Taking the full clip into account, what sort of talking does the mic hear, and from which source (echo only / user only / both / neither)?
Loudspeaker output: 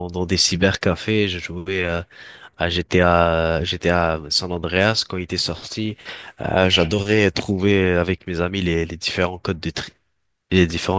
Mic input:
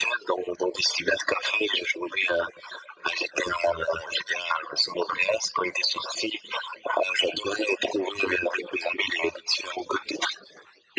echo only